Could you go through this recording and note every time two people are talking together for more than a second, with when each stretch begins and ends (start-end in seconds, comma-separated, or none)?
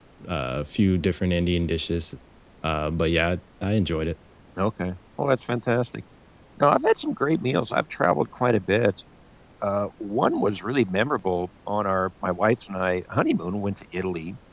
none